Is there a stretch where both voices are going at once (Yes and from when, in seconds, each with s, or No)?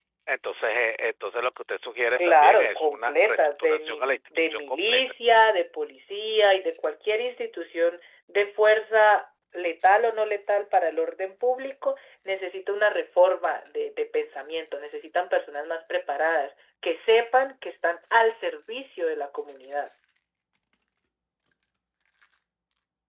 Yes, from 2.2 s